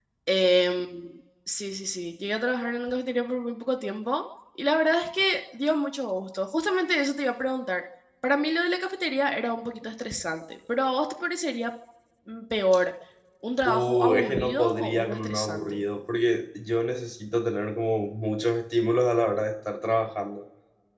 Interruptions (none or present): present